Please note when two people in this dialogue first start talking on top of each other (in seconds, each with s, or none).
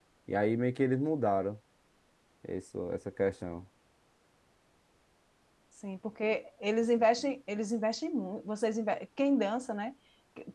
none